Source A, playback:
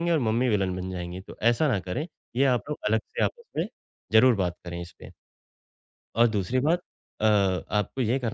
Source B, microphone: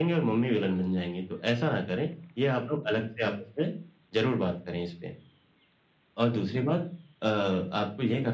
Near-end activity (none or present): none